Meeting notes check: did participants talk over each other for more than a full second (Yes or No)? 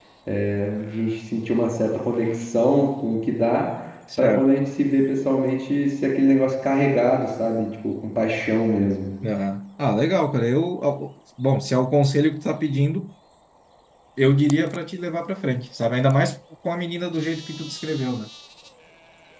No